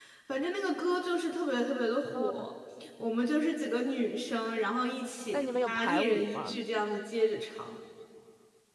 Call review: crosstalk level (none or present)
present